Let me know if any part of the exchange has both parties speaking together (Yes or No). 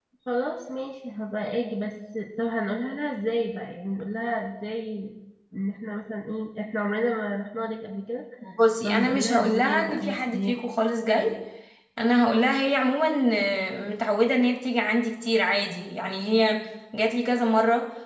Yes